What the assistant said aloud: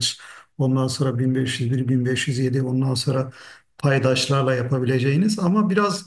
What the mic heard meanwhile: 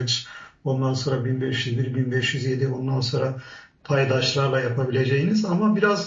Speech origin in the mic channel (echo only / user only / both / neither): echo only